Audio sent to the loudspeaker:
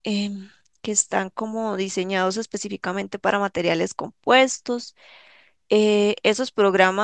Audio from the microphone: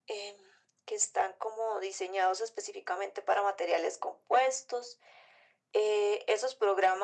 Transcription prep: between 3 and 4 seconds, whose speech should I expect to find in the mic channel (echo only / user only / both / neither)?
echo only